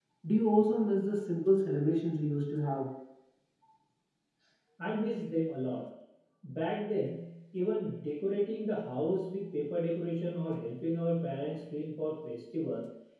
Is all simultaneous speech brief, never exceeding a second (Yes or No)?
Yes